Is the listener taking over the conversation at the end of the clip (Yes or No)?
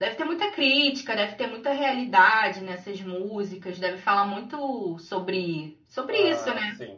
Yes